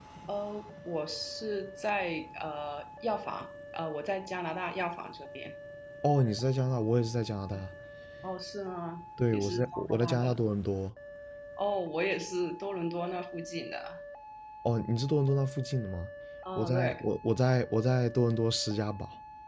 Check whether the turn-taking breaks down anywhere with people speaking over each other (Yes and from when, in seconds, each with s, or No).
Yes, from 9.3 s